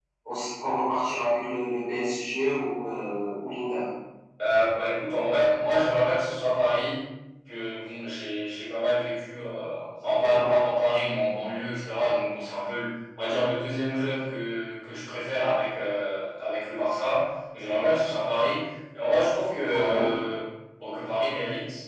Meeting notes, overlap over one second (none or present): none